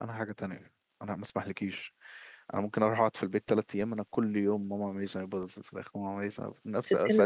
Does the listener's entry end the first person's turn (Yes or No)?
No